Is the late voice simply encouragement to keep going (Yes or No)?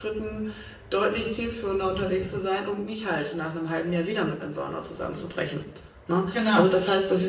Yes